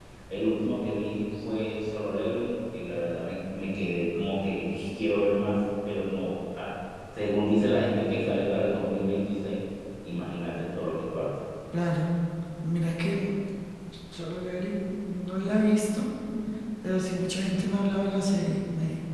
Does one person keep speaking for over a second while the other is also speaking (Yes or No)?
No